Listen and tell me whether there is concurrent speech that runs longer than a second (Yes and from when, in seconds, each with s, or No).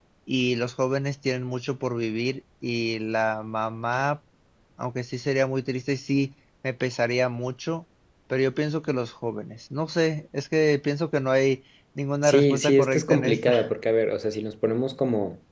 Yes, from 12.2 s